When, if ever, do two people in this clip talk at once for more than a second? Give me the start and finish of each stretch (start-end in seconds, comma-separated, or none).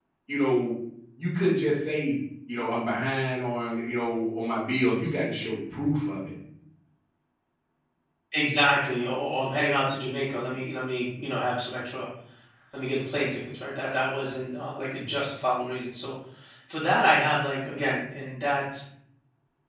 none